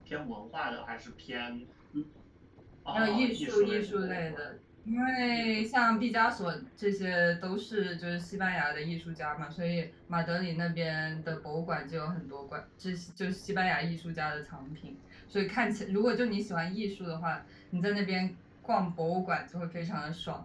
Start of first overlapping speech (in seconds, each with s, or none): 2.9 s